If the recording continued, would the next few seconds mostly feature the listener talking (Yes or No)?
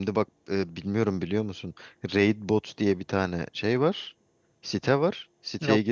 No